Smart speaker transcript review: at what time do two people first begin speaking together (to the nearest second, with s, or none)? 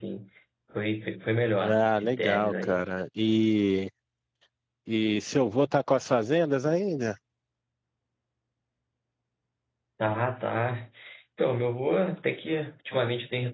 2 s